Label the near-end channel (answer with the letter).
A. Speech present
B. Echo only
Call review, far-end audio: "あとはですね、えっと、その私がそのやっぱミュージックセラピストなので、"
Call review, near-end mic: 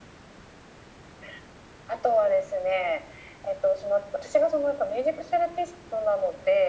B